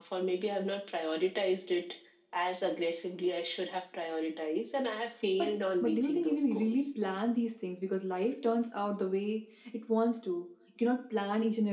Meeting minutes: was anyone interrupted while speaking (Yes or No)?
Yes